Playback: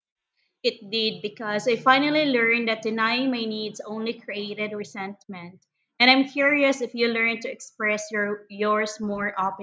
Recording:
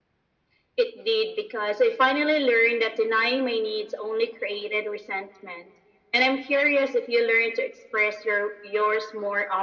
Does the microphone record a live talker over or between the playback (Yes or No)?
No